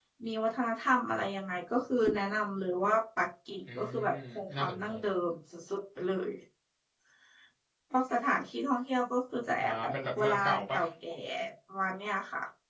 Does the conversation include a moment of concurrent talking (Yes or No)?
Yes